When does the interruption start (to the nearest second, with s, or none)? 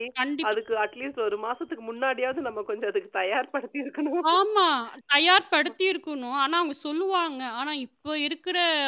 none